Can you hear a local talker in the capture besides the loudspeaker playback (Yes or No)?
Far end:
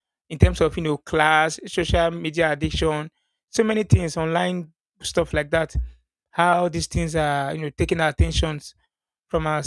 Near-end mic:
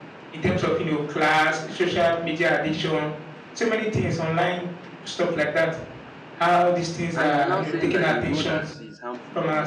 Yes